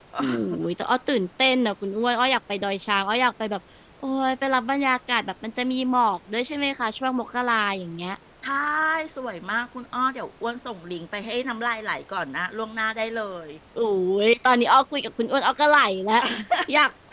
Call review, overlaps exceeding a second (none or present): none